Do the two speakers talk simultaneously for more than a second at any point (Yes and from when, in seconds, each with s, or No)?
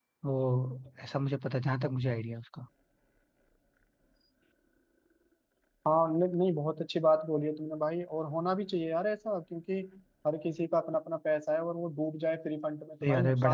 No